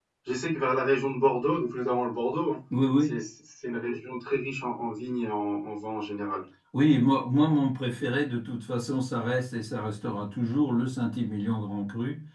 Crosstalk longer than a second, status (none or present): none